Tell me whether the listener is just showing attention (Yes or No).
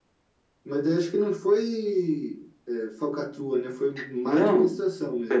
No